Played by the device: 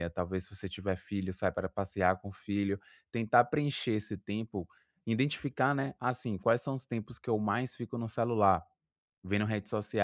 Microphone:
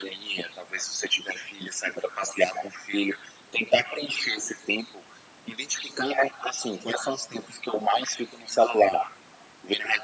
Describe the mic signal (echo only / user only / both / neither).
echo only